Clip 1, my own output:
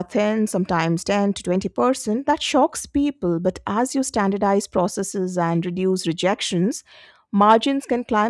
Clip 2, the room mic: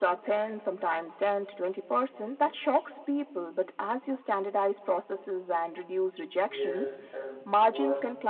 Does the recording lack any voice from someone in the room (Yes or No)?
No